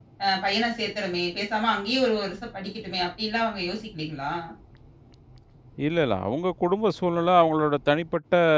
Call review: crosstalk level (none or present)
none